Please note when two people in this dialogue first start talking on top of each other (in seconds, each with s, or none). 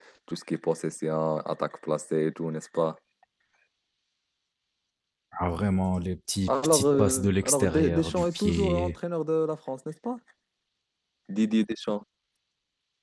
6.5 s